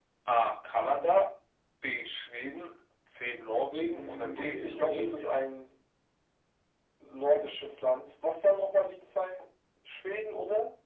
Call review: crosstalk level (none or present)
present